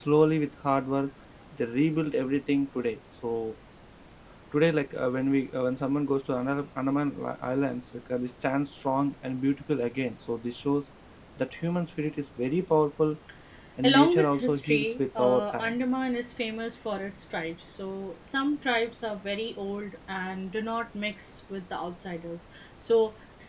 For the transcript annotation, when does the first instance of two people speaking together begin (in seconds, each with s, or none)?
13.8 s